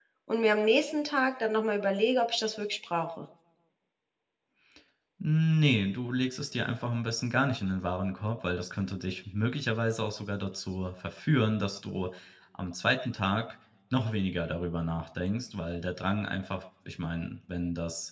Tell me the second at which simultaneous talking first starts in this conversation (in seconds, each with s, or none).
none